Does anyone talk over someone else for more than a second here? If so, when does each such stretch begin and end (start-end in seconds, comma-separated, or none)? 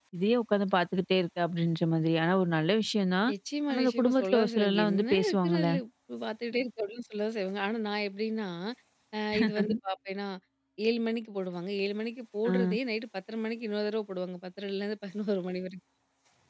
3.7-5.7